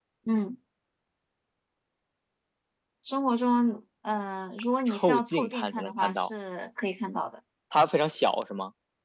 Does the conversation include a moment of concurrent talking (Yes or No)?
Yes